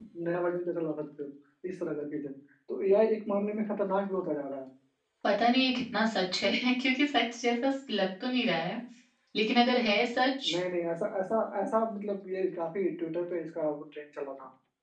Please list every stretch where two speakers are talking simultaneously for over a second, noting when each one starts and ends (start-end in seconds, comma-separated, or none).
none